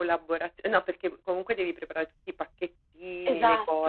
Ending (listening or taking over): listening